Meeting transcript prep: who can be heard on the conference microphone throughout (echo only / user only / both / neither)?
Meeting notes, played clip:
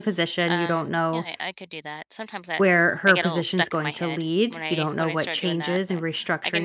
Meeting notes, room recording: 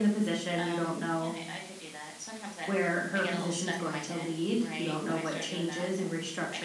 echo only